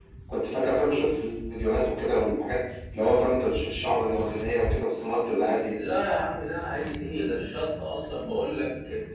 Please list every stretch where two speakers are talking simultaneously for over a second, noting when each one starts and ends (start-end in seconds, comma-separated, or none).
none